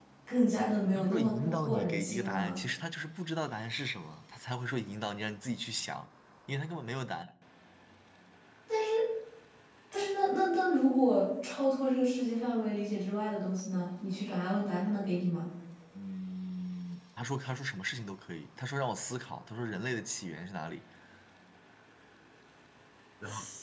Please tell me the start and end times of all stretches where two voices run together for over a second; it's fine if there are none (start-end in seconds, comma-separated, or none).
0.9-2.6